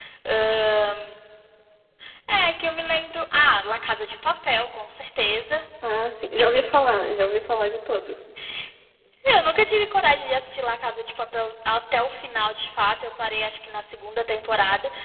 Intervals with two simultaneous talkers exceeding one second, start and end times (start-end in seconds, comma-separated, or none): none